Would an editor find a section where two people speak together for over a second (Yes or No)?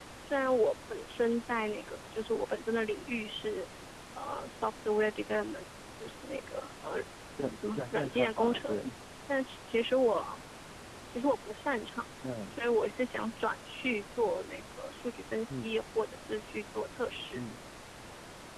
Yes